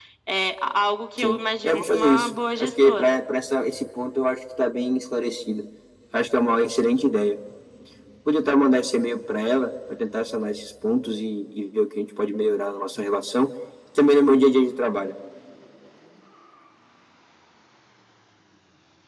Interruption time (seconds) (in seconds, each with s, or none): 1.2 s